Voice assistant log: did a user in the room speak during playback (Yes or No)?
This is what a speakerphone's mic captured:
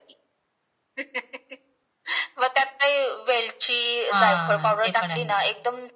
Yes